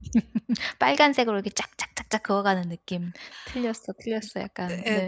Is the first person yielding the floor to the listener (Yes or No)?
Yes